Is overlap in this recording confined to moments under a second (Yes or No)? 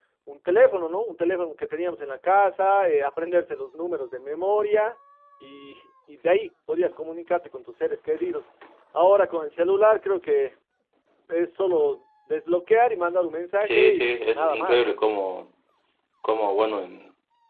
No